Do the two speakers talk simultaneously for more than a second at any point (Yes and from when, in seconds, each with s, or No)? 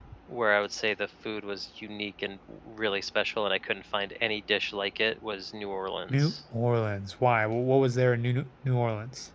No